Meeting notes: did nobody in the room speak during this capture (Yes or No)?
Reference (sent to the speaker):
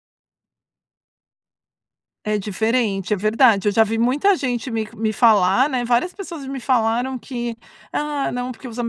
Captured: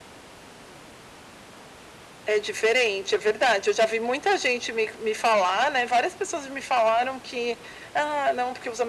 Yes